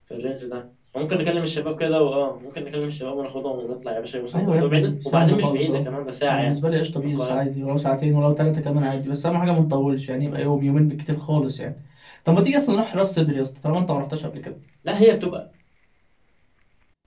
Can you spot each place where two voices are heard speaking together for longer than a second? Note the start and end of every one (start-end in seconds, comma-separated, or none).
4.3-5.9